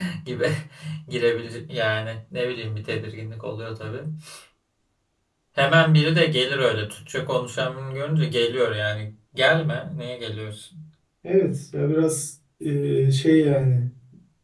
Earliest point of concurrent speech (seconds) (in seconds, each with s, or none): none